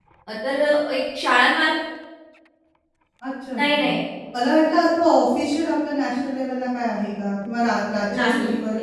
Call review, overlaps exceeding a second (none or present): none